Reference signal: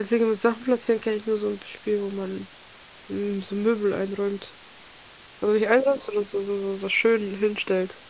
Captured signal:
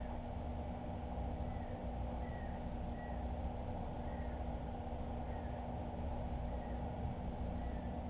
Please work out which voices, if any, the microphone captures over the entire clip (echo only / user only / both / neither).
neither